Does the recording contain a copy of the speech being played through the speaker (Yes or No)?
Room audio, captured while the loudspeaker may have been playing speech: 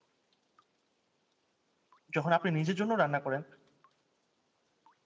No